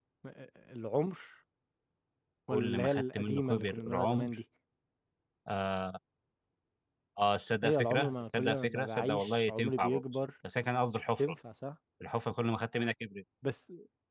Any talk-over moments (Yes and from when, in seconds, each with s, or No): Yes, from 2.5 s